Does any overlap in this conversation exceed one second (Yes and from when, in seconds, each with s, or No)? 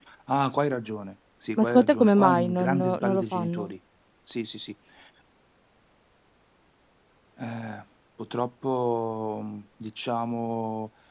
Yes, from 1.6 s